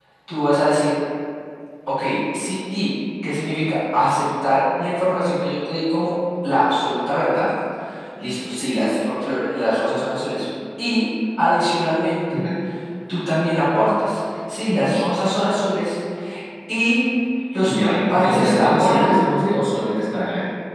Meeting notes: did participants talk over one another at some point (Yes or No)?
Yes